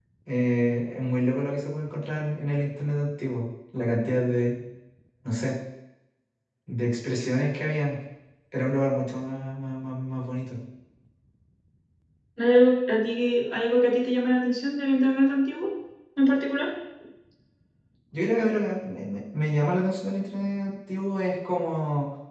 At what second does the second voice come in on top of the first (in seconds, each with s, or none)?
none